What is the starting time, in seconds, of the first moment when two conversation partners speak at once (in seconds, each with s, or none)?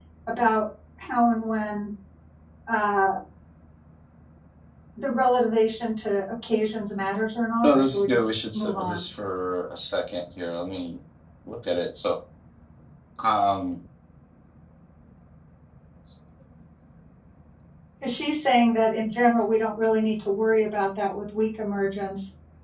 7.6 s